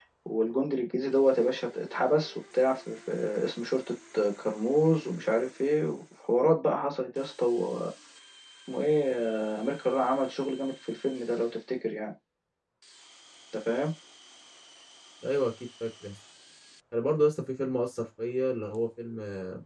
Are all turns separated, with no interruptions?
Yes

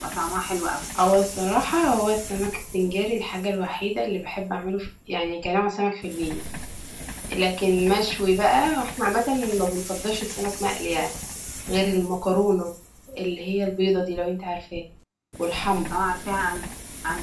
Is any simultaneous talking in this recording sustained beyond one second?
No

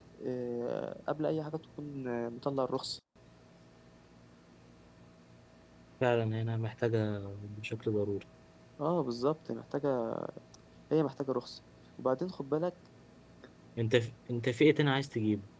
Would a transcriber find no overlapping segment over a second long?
Yes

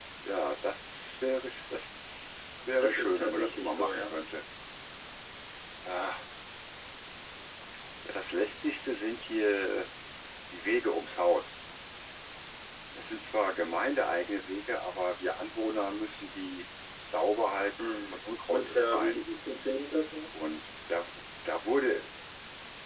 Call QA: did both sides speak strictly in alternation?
No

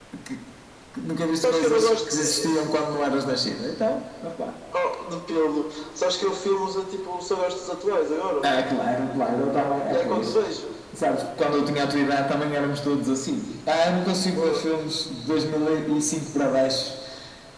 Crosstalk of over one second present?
Yes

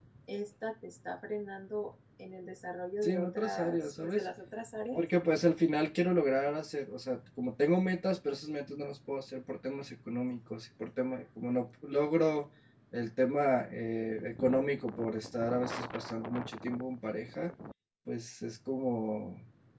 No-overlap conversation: No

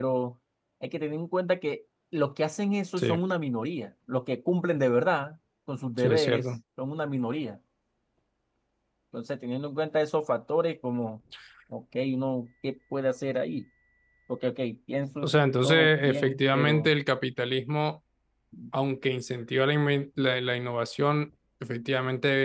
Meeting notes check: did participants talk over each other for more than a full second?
Yes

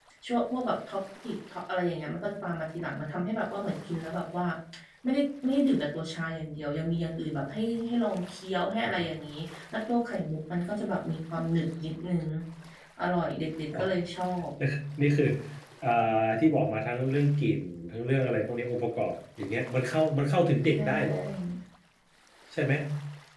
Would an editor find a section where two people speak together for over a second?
No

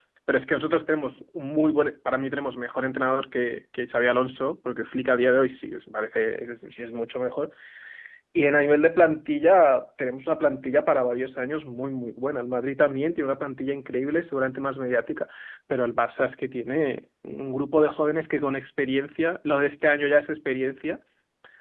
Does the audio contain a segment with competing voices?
No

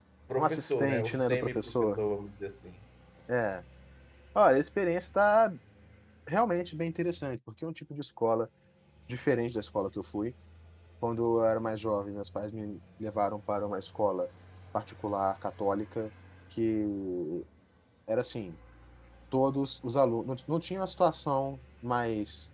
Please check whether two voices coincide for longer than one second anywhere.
Yes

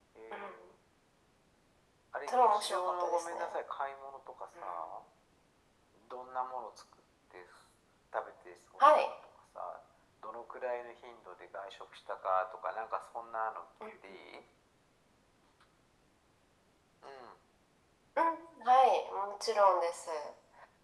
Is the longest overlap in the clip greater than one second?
Yes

